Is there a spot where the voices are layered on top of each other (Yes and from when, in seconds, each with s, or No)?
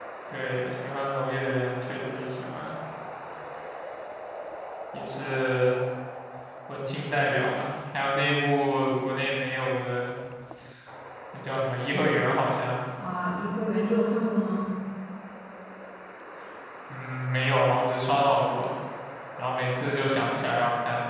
No